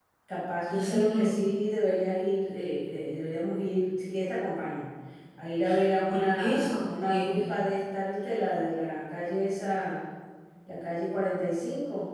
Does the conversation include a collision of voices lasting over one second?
Yes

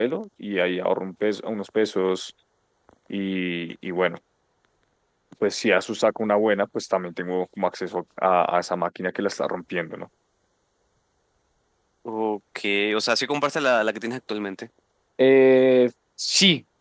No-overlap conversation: Yes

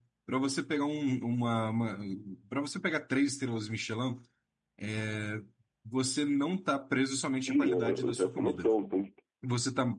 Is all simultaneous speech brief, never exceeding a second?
No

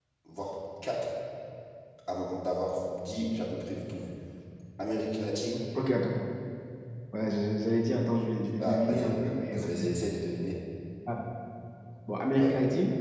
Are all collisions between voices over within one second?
No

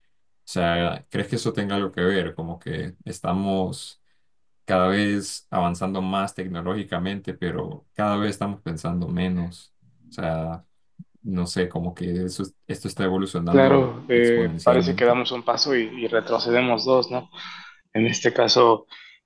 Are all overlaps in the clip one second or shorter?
No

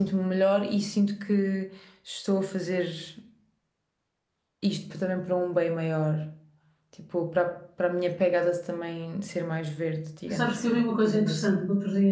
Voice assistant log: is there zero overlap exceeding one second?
No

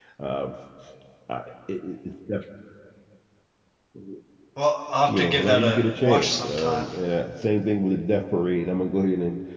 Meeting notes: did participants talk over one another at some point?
Yes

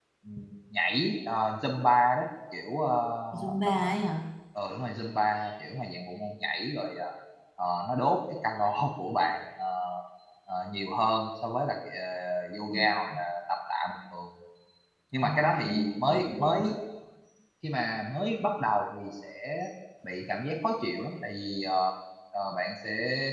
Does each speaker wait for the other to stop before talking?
No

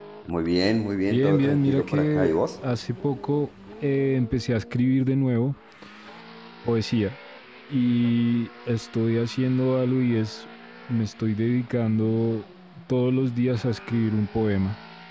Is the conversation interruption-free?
No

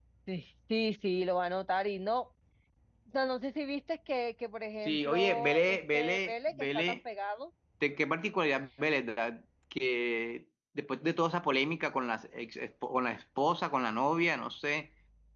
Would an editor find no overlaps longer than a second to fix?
No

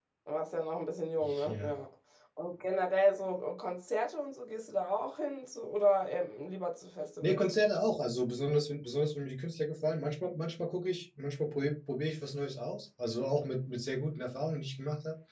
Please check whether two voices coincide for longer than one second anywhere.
No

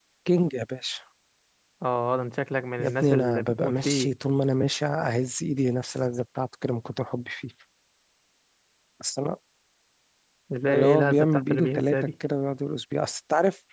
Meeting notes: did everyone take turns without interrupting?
No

